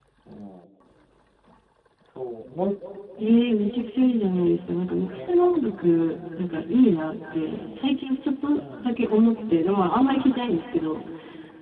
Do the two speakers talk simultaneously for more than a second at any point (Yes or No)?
No